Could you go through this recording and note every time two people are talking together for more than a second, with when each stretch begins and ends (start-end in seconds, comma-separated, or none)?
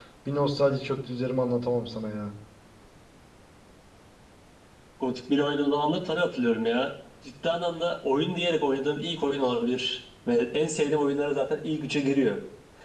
none